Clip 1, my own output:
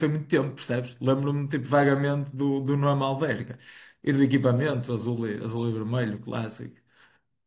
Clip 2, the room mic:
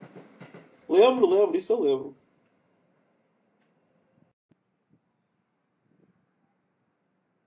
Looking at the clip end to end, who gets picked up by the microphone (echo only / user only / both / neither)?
user only